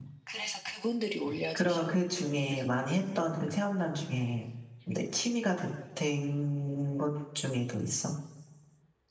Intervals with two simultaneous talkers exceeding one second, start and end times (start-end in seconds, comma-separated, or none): none